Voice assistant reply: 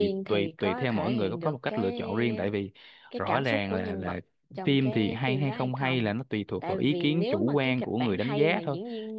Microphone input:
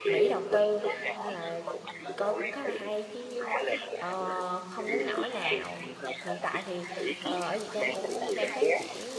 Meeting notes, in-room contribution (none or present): present